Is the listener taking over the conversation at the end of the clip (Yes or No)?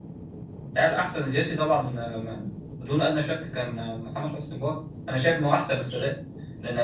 No